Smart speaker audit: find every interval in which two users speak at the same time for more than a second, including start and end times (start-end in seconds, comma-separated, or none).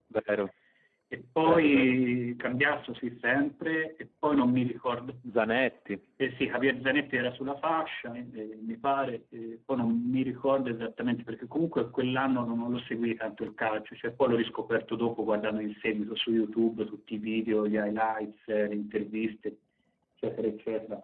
none